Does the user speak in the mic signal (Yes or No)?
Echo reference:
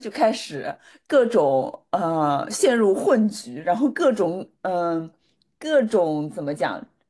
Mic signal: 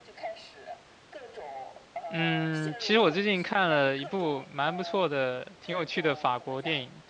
Yes